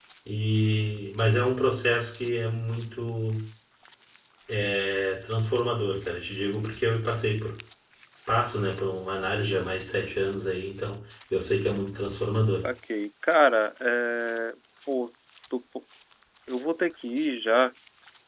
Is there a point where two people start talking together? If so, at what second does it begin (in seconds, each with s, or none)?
none